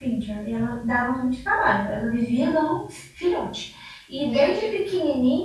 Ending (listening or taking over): listening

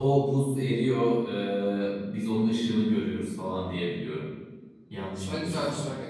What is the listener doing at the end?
taking over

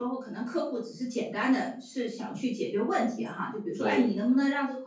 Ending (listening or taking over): listening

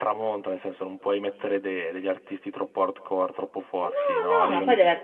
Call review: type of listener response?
taking over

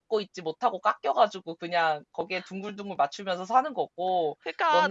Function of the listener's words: taking over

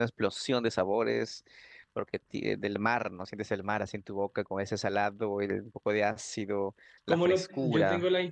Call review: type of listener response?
taking over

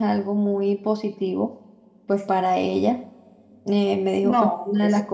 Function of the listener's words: listening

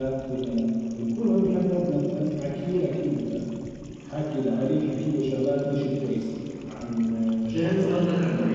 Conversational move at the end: taking over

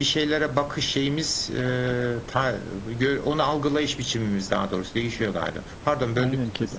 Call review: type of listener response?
taking over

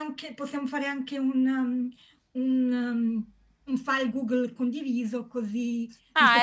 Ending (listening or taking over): listening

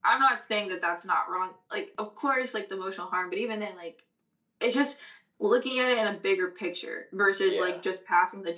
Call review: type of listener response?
listening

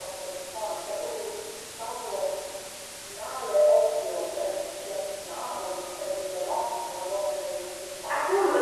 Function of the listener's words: taking over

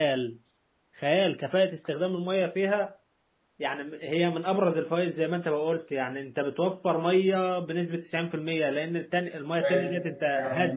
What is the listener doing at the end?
taking over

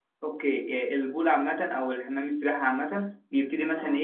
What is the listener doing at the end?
listening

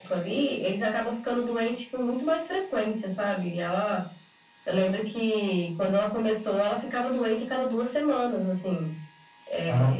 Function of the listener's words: listening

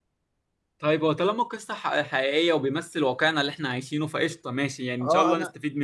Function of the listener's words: taking over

